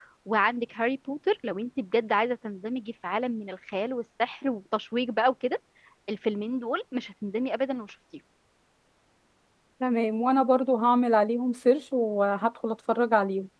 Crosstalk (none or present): none